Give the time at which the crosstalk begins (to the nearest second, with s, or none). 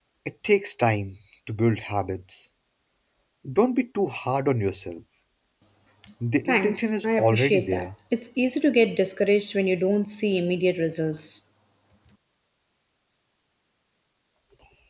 6 s